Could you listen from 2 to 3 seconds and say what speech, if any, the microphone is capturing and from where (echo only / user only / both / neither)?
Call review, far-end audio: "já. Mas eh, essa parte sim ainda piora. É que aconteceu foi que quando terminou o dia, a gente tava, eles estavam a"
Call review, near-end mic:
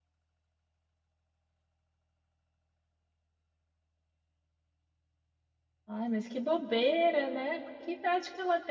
neither